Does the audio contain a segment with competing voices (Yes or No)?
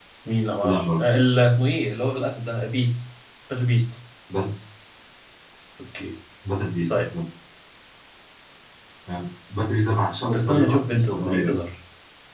Yes